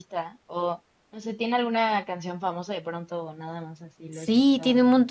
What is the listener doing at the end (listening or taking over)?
taking over